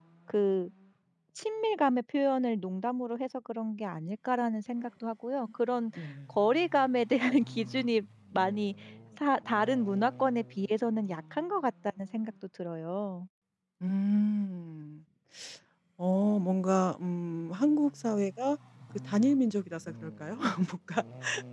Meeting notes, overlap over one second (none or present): none